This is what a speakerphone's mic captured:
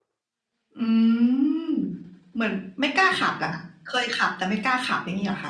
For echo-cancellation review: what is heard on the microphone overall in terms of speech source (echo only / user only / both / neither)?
echo only